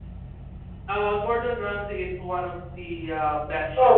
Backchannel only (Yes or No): No